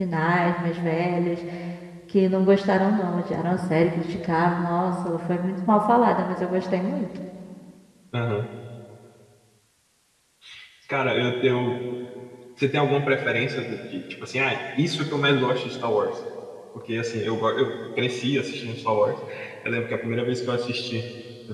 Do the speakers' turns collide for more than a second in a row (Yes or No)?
No